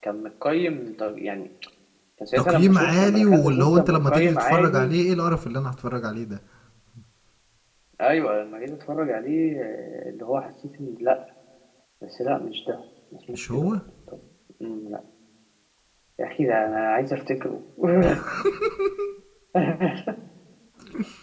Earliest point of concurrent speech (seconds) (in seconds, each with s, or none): 2.4 s